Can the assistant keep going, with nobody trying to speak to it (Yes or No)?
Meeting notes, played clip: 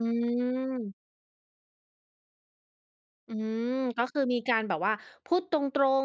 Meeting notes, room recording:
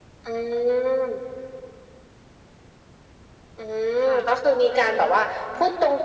No